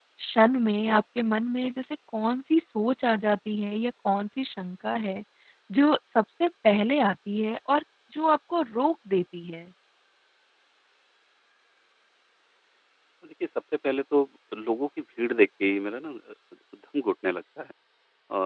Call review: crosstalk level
none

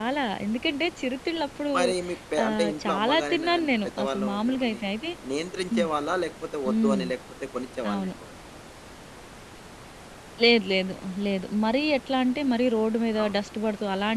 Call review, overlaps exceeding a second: present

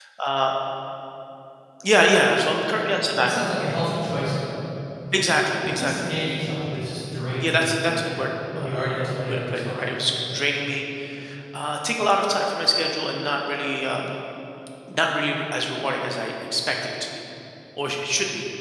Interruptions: present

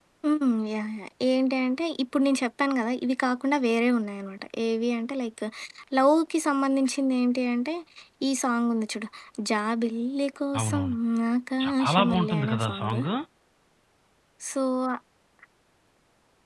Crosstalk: present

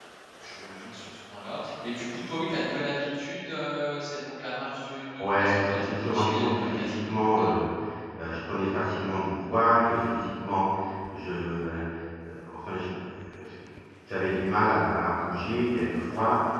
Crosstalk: present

